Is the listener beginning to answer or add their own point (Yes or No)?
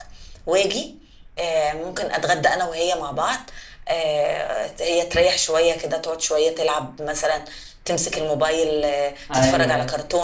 Yes